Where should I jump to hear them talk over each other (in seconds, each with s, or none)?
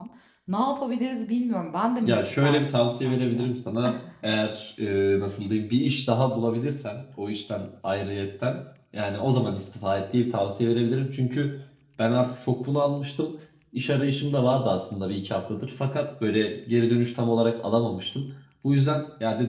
2.0 s